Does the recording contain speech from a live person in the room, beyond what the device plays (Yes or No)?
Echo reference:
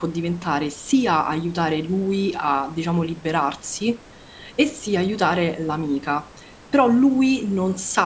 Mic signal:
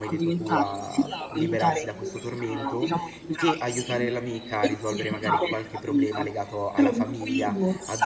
Yes